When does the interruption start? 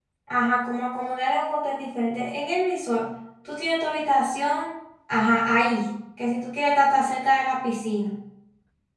none

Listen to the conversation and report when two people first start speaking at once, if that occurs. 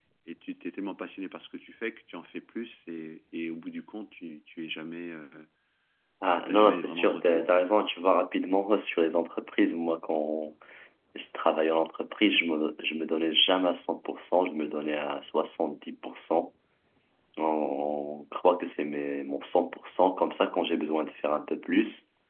6.3 s

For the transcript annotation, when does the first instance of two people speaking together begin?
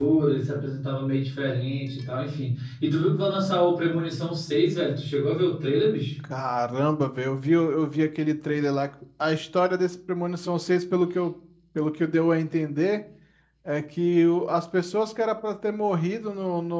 none

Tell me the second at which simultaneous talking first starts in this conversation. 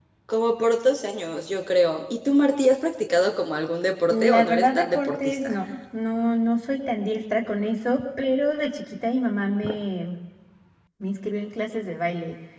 4.1 s

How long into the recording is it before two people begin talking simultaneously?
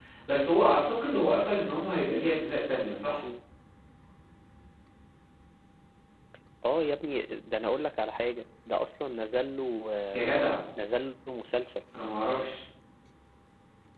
none

